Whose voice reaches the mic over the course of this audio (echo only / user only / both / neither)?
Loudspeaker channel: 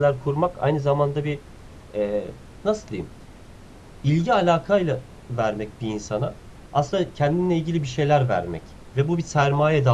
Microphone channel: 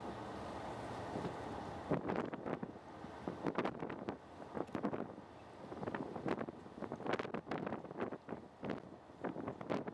neither